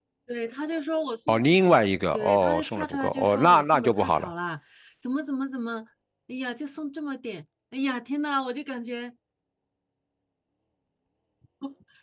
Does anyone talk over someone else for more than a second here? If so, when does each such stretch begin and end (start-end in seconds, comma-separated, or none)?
2.1-4.3